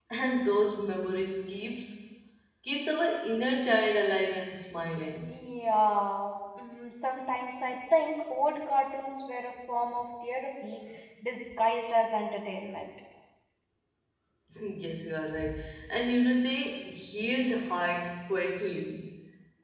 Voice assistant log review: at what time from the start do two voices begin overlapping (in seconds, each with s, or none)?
none